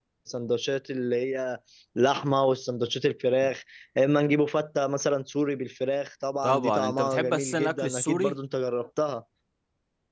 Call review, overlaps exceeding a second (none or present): present